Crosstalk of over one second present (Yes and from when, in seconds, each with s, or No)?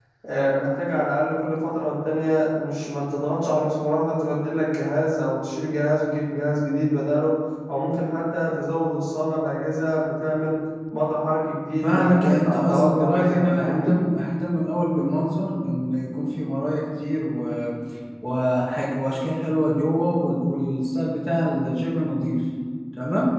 Yes, from 11.8 s